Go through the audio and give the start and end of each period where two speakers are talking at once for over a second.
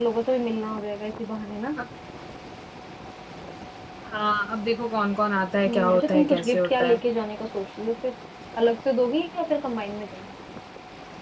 5.7-7.0

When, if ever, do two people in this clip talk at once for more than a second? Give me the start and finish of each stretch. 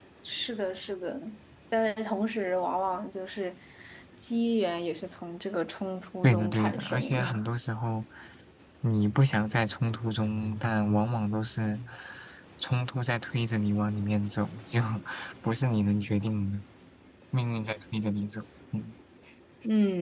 6.2-7.5

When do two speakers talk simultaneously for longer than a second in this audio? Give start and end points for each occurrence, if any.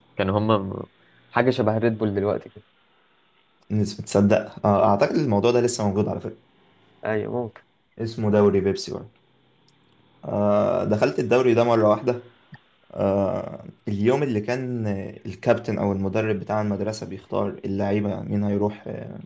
none

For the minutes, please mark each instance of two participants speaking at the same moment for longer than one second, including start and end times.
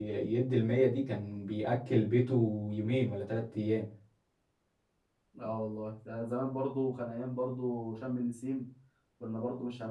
none

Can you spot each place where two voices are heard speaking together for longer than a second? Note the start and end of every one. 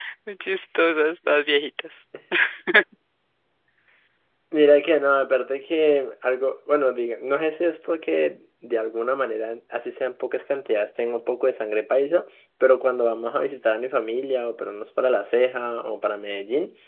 none

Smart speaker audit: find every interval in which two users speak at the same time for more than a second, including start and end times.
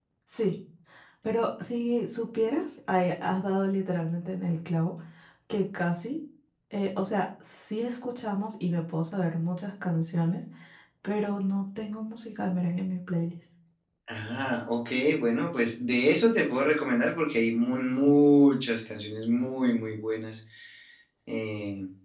none

